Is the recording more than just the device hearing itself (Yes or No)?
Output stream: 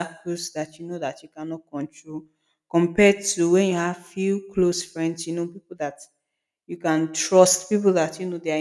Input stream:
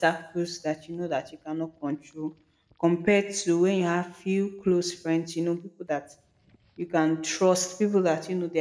No